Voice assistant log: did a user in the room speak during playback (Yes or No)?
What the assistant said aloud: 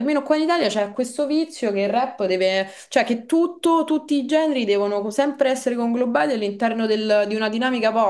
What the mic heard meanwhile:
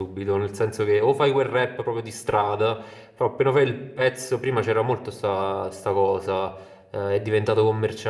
Yes